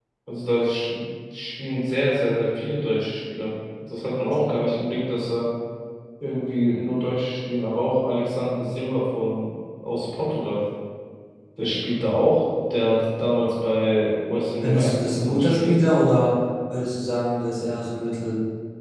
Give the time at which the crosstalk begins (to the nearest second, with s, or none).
15 s